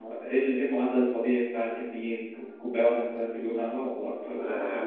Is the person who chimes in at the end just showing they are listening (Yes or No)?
No